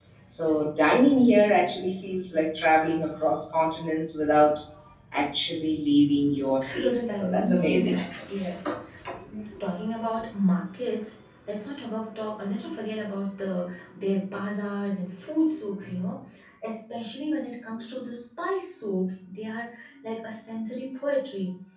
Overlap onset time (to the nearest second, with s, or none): 7 s